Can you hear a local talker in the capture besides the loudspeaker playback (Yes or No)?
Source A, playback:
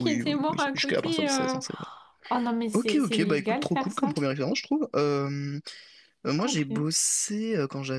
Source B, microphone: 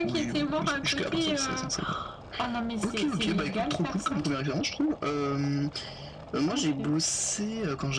No